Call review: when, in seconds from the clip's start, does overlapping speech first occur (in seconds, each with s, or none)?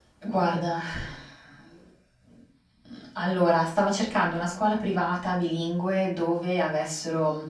none